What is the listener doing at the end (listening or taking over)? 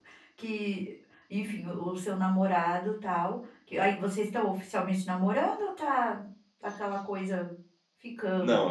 taking over